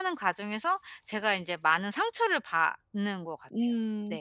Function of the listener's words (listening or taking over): taking over